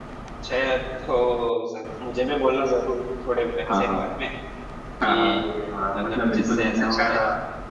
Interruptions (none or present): present